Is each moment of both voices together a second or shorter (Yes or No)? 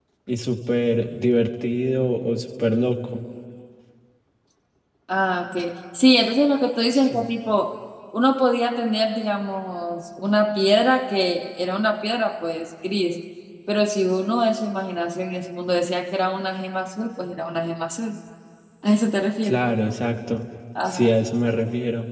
Yes